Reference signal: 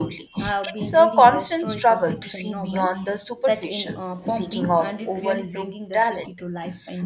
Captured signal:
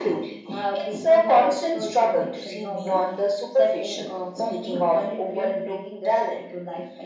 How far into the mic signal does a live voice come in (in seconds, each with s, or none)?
none